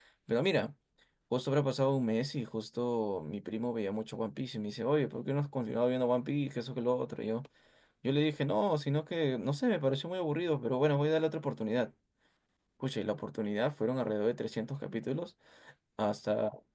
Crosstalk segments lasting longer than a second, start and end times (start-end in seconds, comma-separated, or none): none